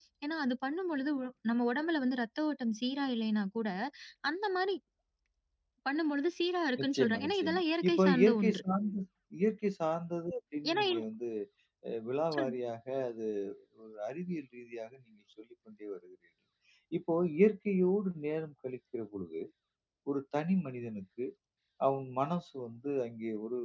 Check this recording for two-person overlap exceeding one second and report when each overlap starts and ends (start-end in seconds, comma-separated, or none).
6.8-8.6